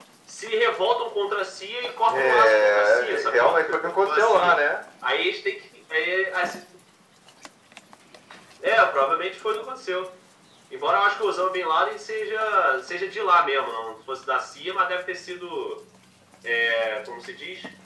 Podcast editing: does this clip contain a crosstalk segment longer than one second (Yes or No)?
Yes